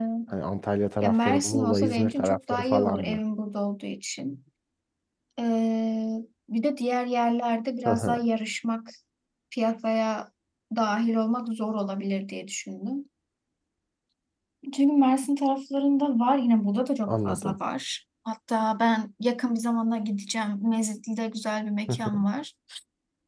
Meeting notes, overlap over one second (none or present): present